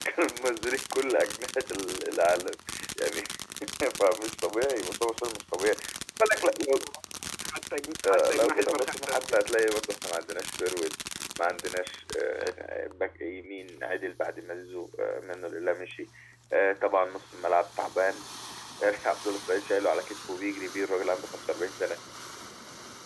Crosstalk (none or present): present